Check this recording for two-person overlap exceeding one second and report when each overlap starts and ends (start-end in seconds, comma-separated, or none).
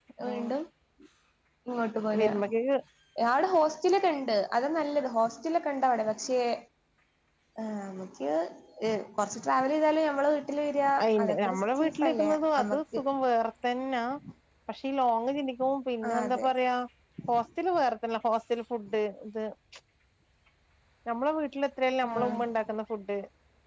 11.2-13.0